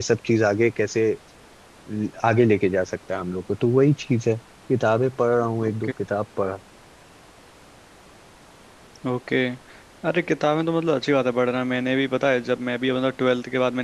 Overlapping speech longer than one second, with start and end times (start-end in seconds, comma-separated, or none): none